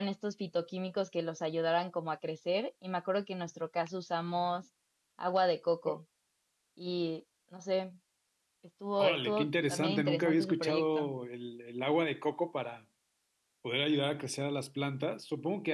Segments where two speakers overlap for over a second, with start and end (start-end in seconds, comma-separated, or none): 9.0-11.1